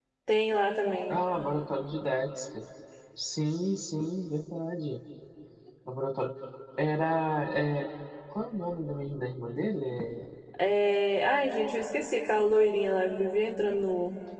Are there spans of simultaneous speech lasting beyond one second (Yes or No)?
No